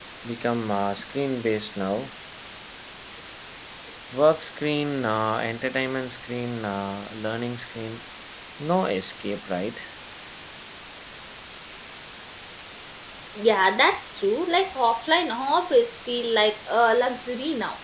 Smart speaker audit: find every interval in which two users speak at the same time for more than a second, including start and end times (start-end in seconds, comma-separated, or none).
none